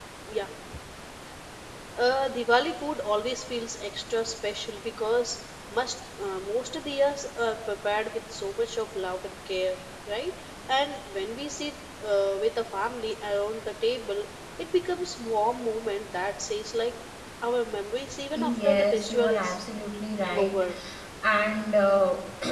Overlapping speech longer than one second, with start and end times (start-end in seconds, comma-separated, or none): 18.3-19.6